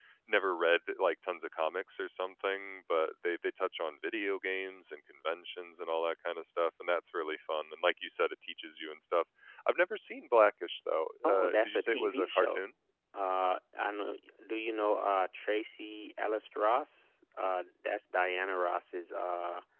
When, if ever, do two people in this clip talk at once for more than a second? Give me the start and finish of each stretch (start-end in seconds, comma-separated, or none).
11.2-12.6